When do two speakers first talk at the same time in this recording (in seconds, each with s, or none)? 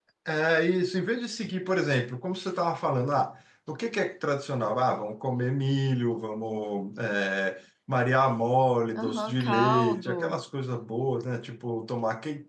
9.0 s